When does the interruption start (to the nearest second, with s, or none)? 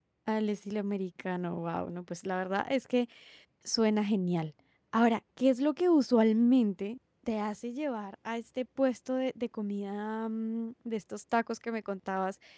none